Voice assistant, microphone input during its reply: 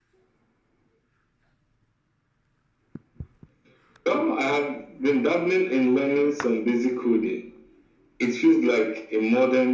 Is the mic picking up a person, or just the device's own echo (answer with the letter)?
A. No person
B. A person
A